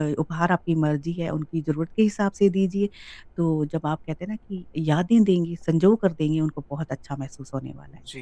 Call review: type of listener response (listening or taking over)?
taking over